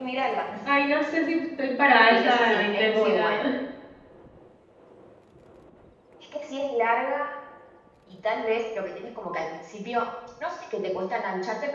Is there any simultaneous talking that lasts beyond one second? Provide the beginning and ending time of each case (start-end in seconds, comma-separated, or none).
2.1-3.4